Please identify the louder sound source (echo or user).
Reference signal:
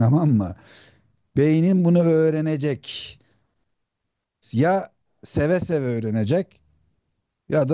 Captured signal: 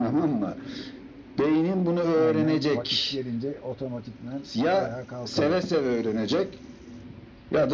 echo